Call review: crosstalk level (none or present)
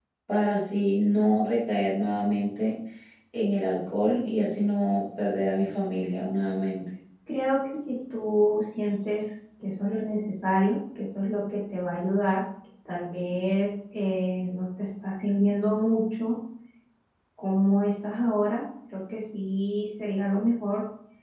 none